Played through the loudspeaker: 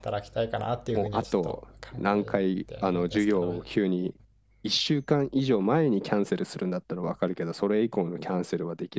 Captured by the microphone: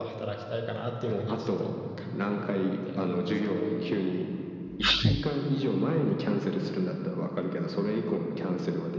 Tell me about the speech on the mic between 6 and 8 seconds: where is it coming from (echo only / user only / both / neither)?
echo only